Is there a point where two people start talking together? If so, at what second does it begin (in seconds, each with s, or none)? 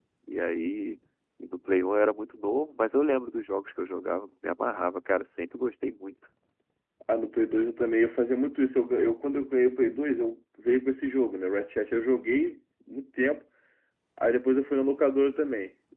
none